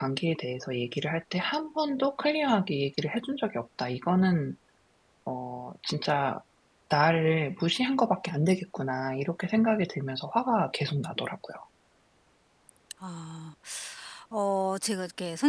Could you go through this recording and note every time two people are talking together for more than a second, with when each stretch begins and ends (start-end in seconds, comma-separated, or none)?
none